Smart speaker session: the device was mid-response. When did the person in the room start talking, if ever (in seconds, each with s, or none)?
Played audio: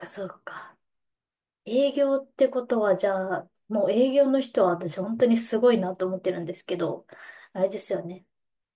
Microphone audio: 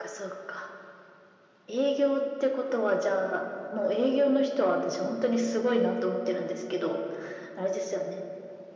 none